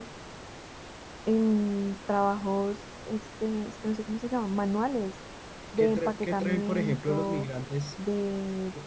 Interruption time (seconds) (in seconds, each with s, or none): 5.8 s